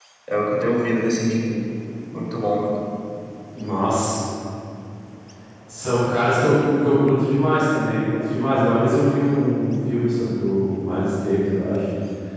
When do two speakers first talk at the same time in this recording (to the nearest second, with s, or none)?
none